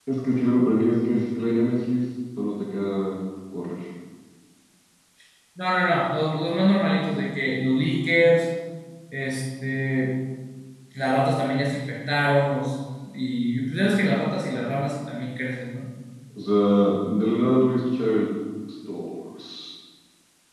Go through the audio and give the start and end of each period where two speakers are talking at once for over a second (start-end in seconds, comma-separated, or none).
none